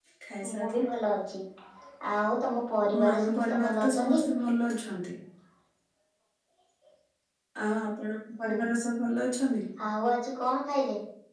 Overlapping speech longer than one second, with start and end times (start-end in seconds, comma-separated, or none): 2.9-4.2